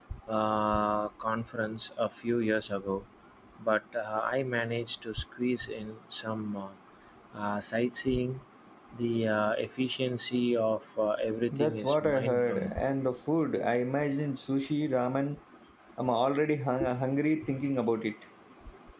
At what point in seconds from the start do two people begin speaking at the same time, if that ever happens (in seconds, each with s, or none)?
11.5 s